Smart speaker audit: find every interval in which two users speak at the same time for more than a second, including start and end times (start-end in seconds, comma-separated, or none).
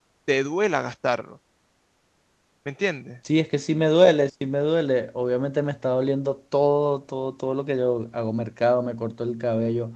none